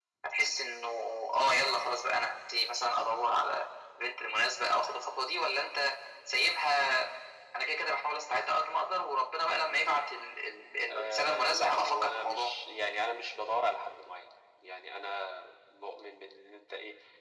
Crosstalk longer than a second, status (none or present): present